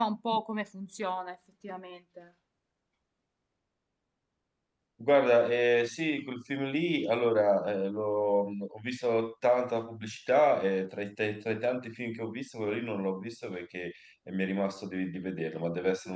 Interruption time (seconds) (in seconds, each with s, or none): none